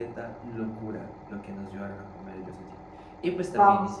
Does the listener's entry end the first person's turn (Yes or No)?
Yes